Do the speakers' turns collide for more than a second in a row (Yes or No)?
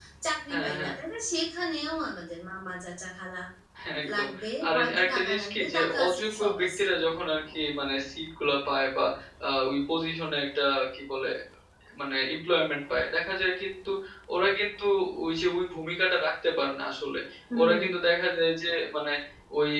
Yes